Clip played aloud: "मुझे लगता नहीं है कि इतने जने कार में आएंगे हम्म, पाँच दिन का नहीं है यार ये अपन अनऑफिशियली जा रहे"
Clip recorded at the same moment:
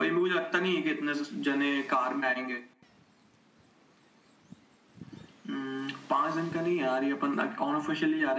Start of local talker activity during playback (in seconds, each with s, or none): none